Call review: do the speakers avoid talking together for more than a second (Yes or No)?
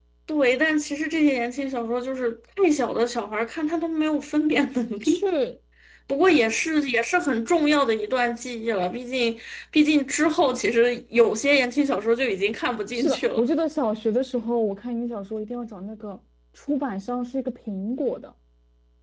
Yes